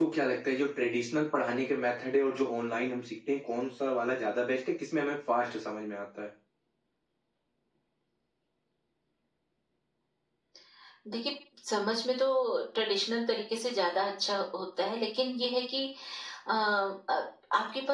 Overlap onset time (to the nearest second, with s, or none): none